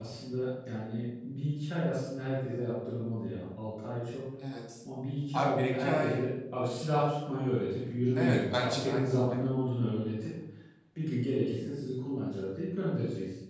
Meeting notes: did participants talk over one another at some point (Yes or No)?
Yes